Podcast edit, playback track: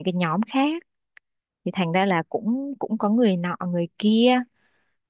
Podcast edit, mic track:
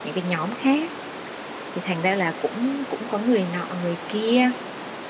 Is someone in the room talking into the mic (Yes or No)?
No